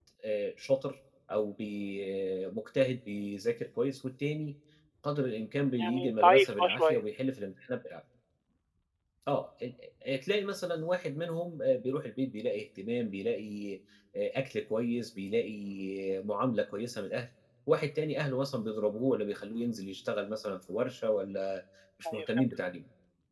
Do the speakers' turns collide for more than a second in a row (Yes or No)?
Yes